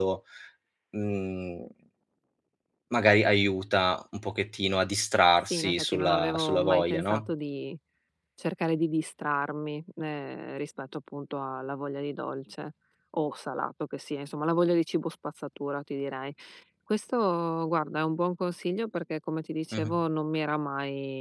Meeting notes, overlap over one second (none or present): present